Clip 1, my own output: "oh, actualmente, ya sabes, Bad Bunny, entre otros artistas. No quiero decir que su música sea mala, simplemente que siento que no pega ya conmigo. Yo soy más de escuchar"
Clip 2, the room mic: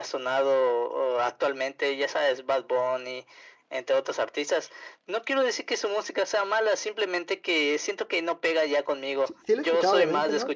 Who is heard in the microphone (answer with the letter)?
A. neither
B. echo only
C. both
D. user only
C